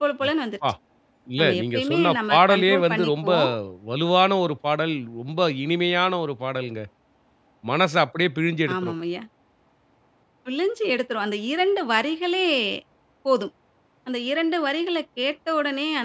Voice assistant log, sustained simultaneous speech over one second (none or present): present